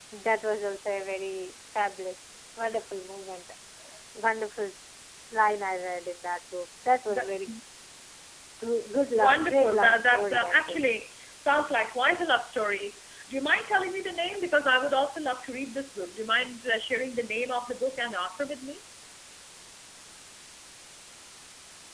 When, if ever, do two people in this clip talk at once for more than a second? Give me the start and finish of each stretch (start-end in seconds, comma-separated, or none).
9.1-10.8